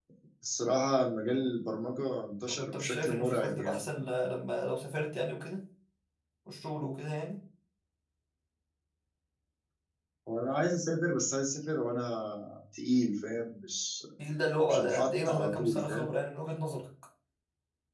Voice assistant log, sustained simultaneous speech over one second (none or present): present